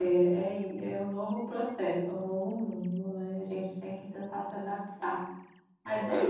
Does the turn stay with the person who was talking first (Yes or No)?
Yes